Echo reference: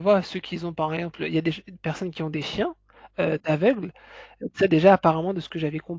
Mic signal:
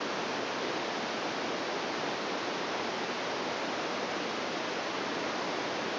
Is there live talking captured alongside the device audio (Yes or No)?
No